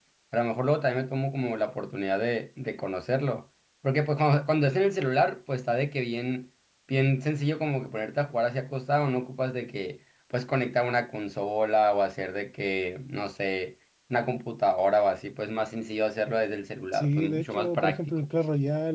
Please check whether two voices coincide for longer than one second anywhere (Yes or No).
Yes